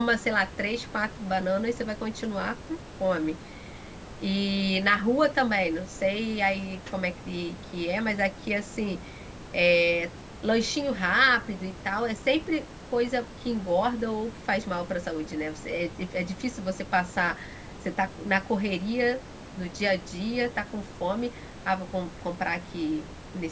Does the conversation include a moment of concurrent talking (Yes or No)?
No